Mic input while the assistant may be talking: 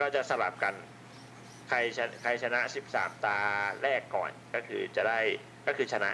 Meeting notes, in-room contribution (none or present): none